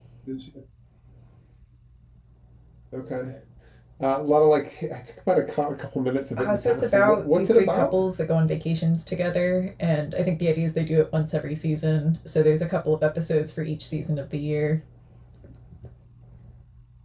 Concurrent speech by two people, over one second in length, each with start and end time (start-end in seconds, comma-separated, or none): 6.4-8.0